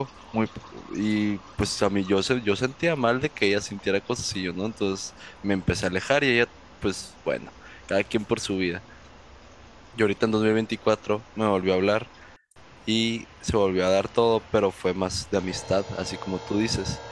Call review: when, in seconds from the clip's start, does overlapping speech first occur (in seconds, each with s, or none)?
none